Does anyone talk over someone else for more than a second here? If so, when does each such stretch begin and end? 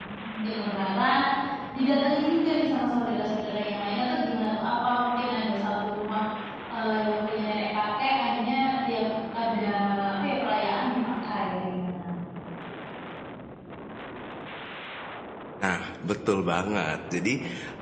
none

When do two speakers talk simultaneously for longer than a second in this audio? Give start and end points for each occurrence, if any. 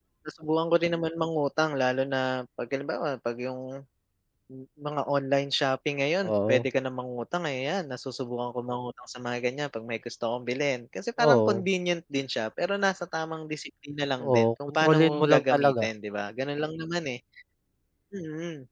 14.2-15.9

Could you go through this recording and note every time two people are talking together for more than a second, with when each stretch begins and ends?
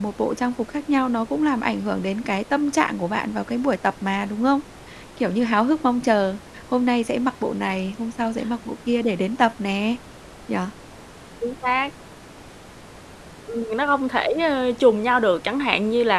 none

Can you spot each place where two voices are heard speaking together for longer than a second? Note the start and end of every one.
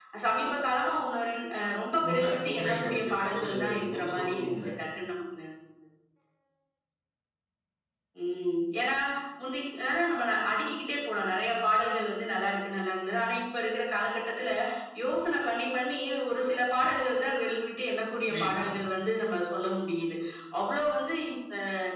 2.1-4.6

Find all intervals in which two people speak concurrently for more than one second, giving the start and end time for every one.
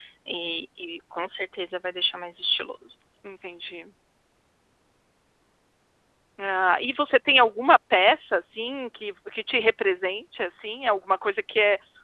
none

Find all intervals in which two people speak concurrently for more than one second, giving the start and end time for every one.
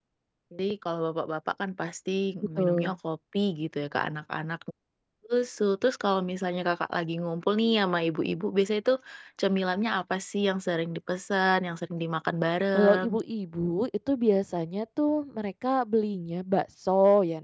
none

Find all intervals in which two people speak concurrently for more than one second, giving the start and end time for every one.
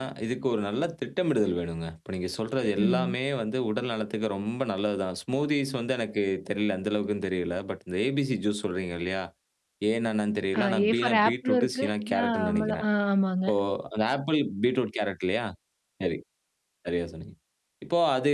10.8-12.8

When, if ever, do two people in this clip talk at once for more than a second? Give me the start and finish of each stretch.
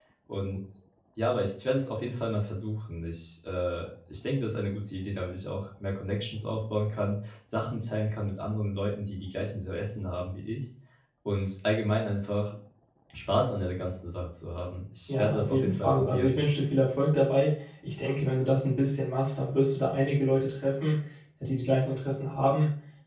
15.1-16.4

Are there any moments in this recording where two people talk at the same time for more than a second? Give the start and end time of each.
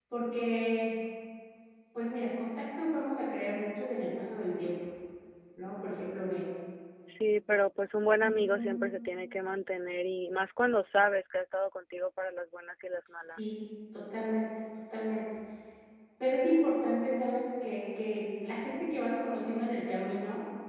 none

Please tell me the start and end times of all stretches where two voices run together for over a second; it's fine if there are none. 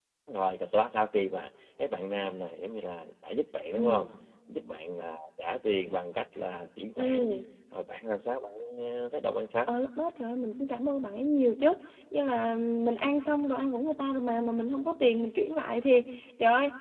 none

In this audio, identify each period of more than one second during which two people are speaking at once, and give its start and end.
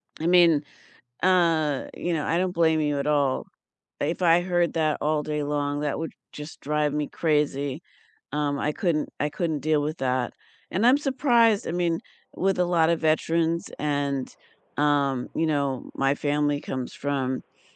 none

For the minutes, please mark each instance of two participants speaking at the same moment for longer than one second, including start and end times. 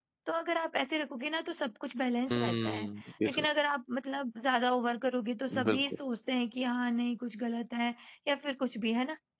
none

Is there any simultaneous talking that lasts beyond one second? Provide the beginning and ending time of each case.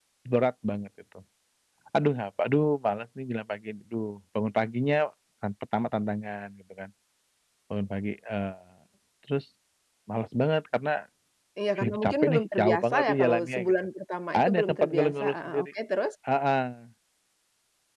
11.8-13.7, 14.4-15.7

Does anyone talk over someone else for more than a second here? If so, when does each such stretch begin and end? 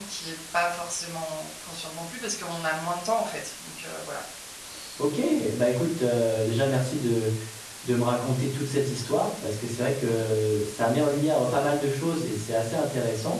none

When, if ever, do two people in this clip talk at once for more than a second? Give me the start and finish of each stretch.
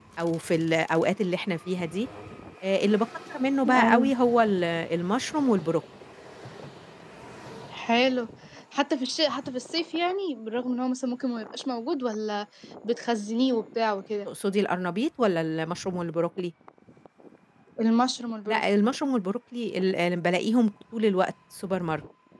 none

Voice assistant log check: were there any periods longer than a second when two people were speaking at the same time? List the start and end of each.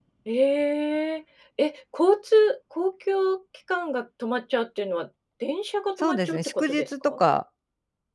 6.0-7.2

